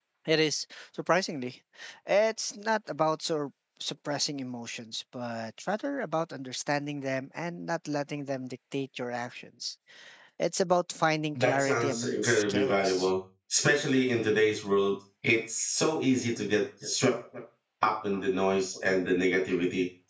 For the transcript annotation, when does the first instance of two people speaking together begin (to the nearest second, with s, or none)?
11 s